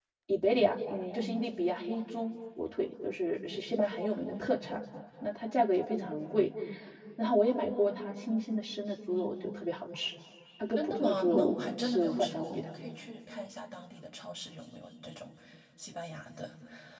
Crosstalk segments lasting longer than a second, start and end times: 10.8-12.6

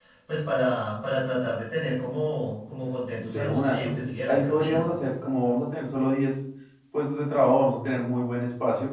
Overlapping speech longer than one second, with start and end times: 3.2-4.9

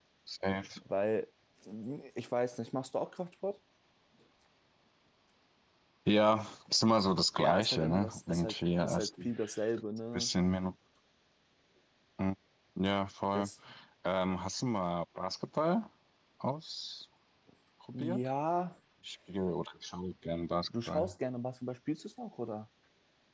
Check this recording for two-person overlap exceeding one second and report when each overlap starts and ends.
7.4-9.3

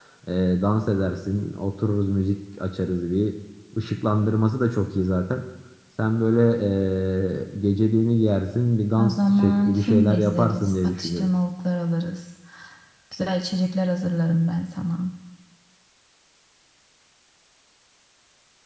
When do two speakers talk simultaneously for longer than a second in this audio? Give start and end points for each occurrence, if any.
9.0-11.3

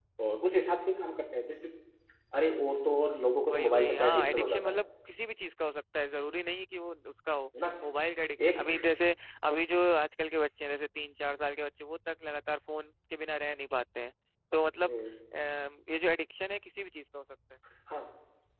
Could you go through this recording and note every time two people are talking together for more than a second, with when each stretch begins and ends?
3.5-4.8

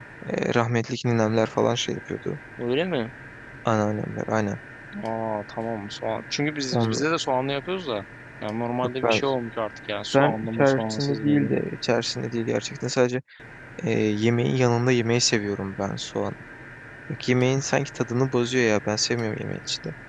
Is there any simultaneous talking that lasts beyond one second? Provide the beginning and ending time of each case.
10.1-11.5

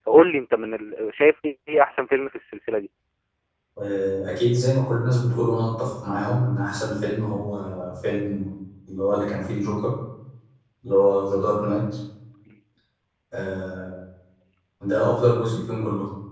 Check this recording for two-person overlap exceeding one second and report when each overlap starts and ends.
none

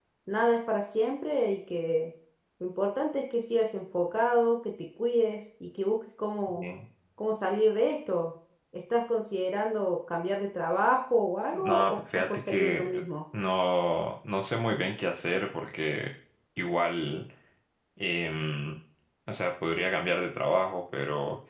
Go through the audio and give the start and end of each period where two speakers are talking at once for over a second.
11.5-13.0

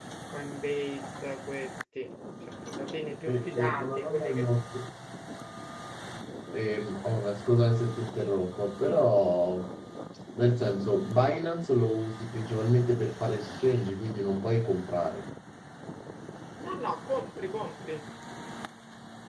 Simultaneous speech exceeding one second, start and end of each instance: 3.2-4.5

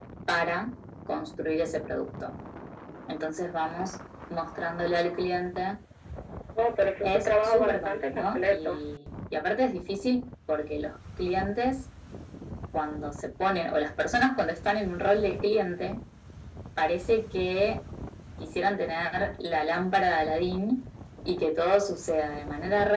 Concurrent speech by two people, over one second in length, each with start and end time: 7.0-8.8

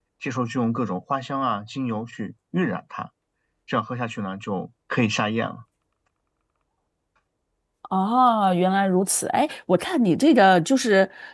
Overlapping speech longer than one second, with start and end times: none

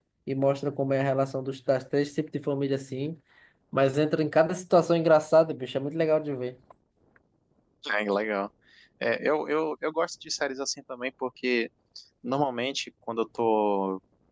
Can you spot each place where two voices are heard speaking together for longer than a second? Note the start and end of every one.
none

